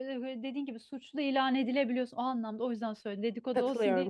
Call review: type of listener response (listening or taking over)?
taking over